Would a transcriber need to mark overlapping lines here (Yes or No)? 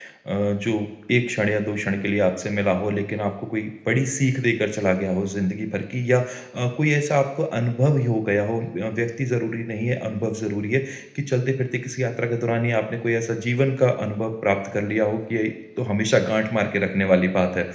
No